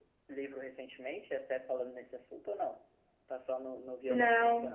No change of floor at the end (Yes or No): No